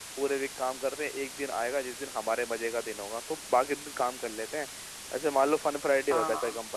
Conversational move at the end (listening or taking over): listening